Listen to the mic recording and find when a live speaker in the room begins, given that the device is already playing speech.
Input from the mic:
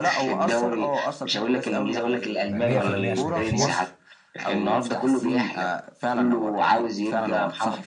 2.5 s

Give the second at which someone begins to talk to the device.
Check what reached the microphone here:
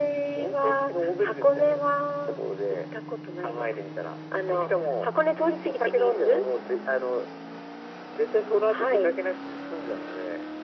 none

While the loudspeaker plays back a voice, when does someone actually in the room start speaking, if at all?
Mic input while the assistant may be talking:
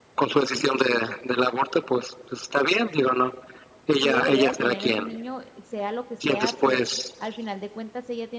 3.9 s

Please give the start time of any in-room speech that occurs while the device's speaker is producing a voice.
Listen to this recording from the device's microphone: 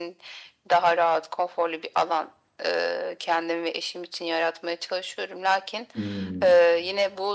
6.0 s

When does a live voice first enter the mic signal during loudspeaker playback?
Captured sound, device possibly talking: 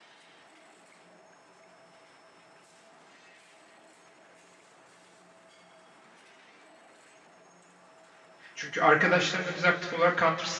8.5 s

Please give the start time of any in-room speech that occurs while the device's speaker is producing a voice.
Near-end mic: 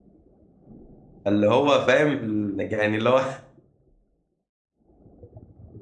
1.3 s

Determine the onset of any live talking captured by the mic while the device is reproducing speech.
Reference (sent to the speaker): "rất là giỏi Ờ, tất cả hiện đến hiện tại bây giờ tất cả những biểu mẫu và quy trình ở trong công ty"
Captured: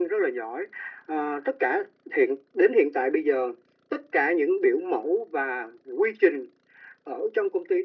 none

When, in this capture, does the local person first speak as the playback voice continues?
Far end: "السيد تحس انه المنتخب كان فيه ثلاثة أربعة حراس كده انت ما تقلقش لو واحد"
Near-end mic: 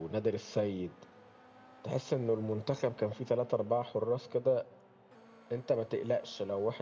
none

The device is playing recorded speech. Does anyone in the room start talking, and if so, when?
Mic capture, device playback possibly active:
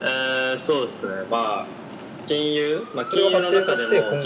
3.0 s

